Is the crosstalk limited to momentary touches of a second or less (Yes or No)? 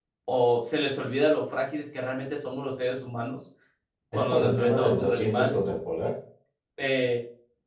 No